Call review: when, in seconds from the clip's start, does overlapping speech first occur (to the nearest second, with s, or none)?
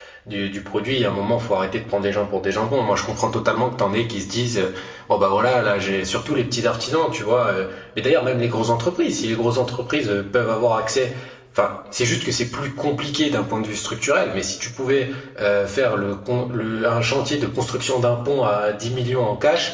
none